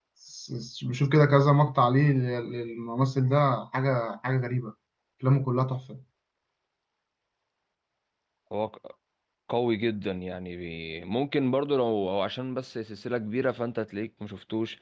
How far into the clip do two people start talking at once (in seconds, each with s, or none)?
none